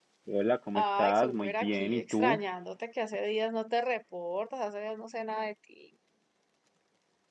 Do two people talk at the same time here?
Yes, from 0.7 s

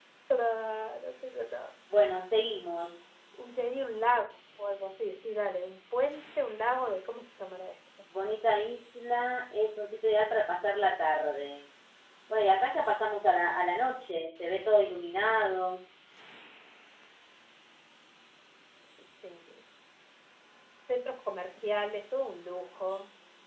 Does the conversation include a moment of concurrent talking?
No

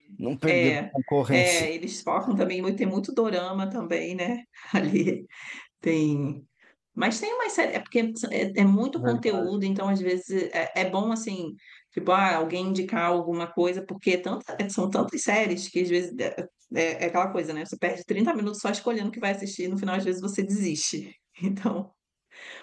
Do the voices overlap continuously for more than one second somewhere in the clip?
No

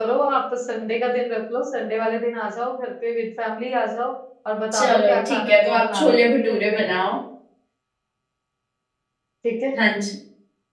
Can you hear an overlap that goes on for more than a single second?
Yes, from 4.7 s

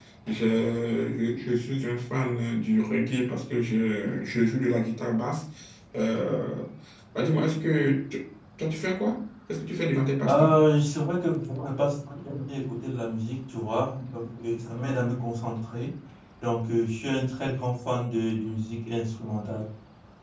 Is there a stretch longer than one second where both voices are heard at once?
No

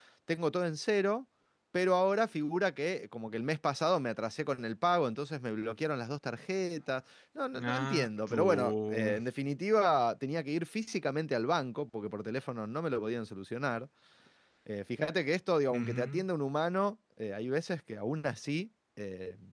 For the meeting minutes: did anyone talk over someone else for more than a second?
Yes, from 7.6 s

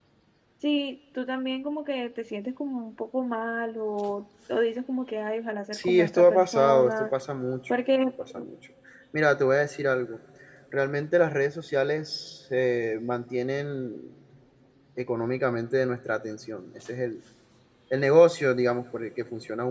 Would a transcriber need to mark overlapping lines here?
Yes, from 5.7 s

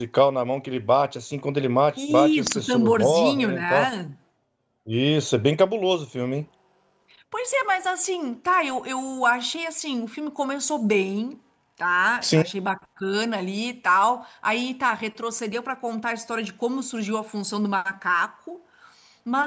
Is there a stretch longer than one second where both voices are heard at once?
Yes, from 2.1 s

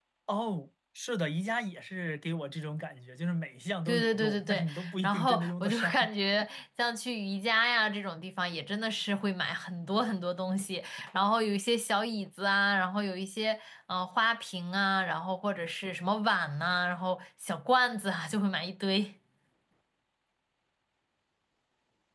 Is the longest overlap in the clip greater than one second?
Yes, from 3.9 s

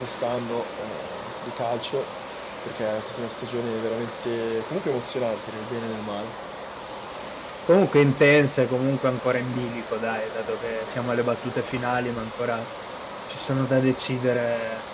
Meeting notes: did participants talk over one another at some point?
No

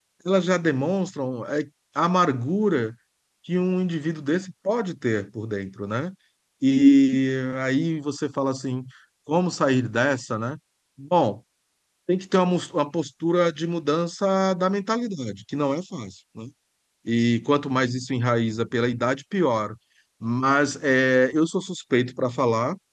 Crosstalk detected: No

